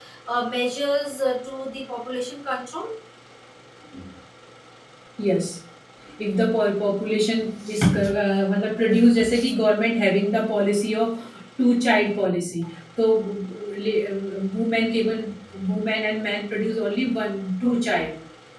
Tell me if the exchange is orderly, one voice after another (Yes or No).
Yes